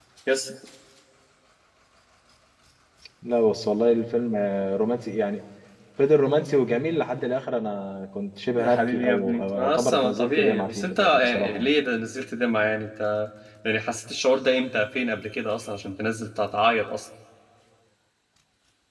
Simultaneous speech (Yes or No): Yes